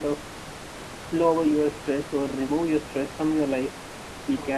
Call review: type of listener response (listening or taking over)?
listening